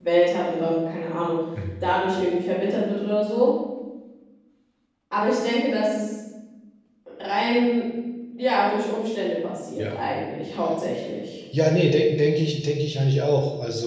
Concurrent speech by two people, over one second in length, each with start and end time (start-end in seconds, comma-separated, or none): none